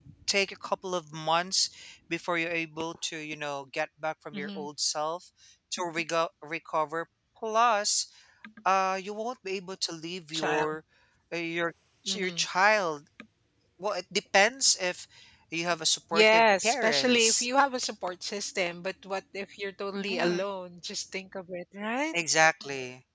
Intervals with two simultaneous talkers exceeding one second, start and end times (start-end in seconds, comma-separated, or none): 16.1-17.5